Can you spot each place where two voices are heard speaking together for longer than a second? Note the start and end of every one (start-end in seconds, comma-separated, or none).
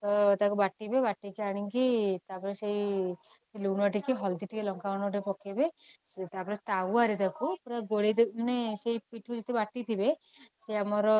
none